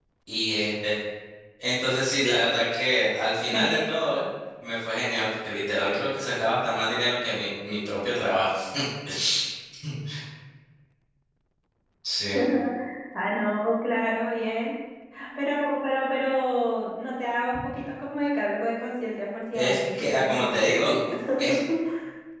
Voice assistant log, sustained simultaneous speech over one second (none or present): present